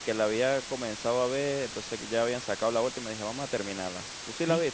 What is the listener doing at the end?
taking over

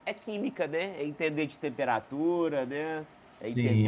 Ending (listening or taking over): taking over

